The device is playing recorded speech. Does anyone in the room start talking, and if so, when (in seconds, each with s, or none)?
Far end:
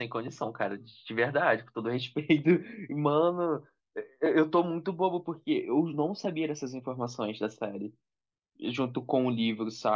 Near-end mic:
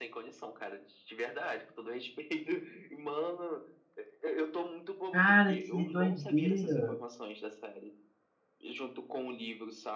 5.1 s